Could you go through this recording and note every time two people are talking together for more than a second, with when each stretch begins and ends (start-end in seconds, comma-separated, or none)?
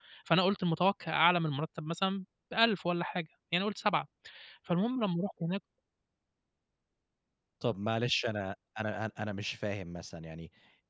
none